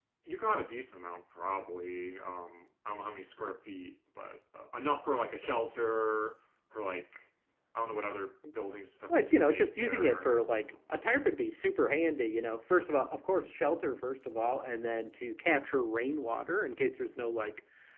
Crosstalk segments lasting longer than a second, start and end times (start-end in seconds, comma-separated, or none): 9.1-11.0